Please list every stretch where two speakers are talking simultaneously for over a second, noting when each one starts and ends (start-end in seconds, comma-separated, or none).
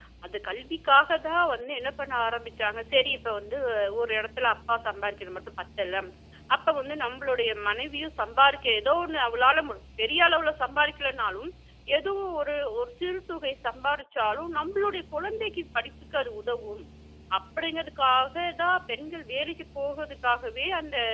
none